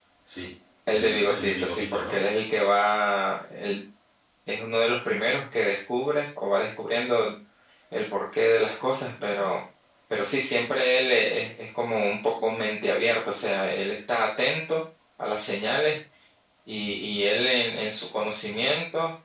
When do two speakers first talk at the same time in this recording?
1 s

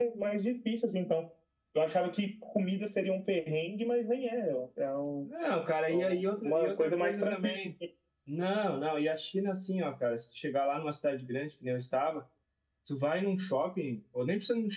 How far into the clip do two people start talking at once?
6 s

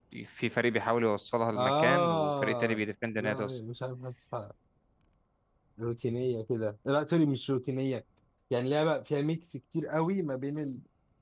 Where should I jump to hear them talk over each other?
2 s

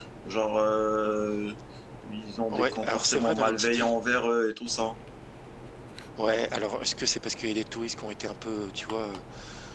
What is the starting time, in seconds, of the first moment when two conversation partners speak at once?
3 s

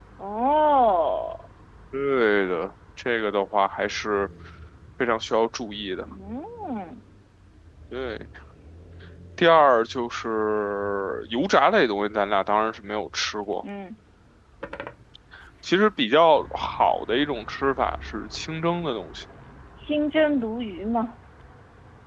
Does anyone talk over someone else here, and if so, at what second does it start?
none

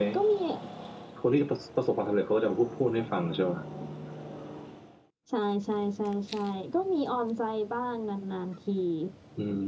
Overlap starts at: none

